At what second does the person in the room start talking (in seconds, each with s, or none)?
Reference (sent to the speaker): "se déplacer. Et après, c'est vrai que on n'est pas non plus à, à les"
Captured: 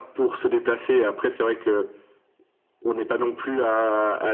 none